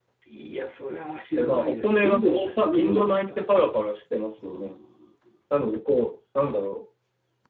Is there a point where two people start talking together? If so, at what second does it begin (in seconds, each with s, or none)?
1.4 s